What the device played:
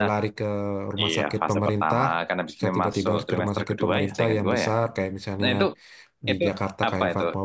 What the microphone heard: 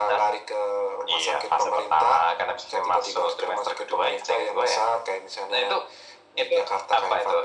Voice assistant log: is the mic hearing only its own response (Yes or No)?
Yes